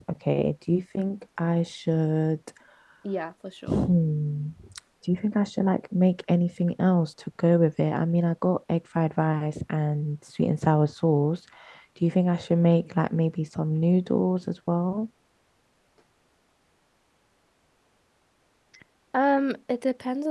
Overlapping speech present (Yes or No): No